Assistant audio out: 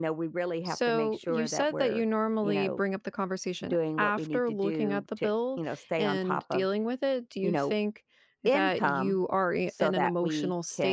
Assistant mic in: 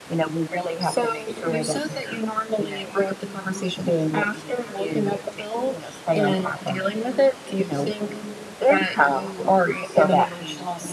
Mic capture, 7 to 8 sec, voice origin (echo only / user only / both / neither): echo only